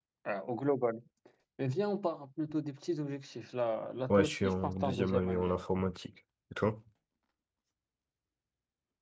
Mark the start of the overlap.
4.1 s

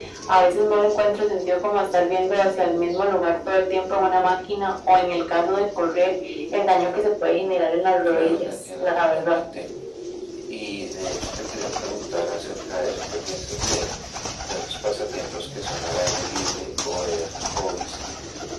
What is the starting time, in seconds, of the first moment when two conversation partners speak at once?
8.0 s

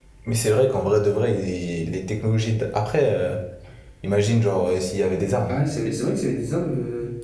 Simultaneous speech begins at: none

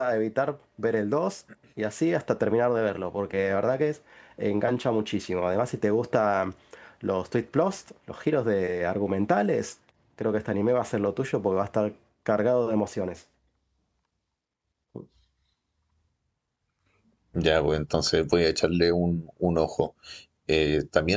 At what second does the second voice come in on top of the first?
none

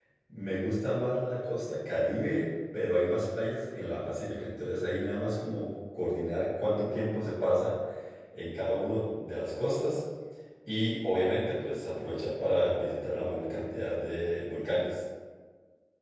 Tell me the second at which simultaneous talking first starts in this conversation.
none

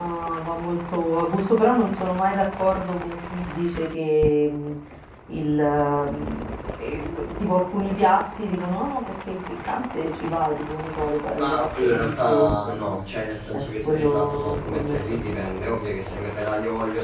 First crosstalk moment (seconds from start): 11.3 s

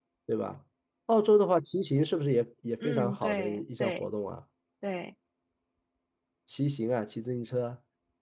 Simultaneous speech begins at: 2.8 s

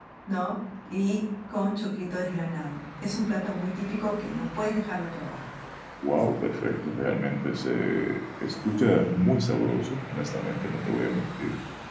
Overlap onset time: none

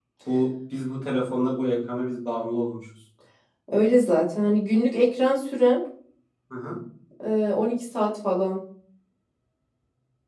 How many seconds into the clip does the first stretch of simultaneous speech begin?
none

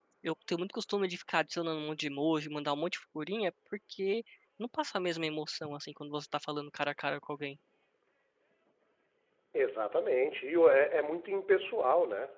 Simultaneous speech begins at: none

